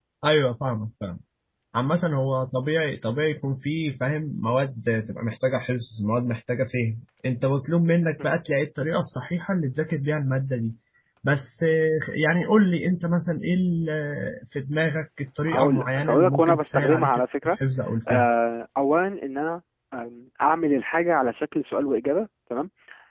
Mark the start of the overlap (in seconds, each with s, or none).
15.5 s